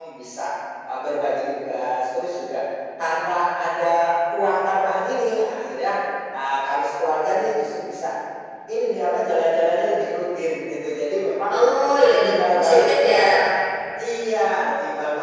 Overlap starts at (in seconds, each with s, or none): 12.0 s